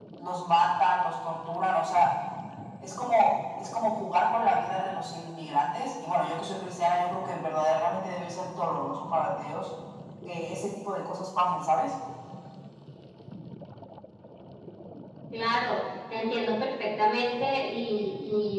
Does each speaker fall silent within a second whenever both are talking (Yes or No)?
Yes